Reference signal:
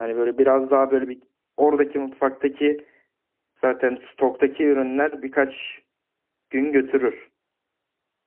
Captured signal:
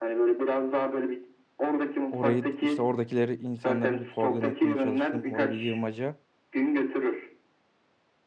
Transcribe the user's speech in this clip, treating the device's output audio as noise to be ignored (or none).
orayı işte oradakileri insanları bir koordine etmeye çalıştım oraya bir yığmaca